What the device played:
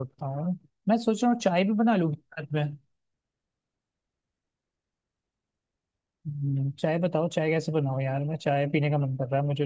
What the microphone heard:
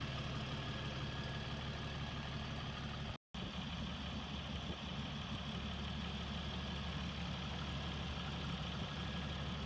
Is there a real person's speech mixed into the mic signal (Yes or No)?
No